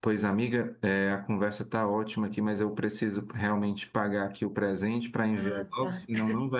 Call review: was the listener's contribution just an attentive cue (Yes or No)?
Yes